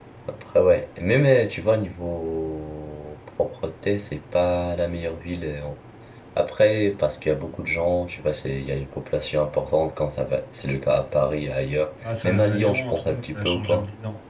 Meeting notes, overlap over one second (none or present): present